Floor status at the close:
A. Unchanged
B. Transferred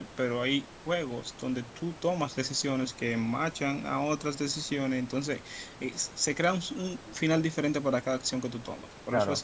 A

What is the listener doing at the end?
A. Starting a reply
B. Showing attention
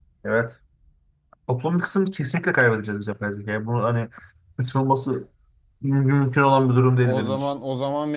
A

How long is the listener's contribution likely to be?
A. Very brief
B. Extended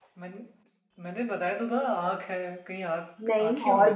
B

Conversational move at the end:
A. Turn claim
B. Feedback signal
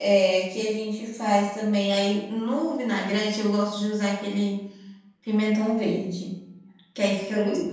B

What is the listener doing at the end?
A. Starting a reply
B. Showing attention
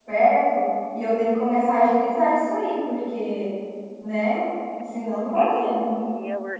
A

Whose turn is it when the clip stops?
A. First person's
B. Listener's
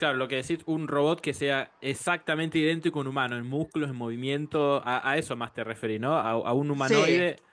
A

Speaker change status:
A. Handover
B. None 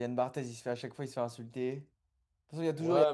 A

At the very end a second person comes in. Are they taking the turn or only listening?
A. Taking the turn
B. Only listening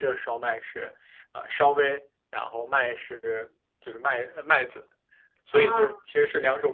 B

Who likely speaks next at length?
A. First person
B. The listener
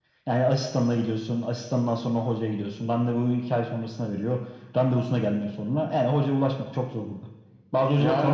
B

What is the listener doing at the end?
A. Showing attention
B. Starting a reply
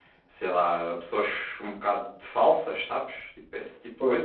B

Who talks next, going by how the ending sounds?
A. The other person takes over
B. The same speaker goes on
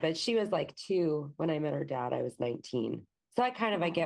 B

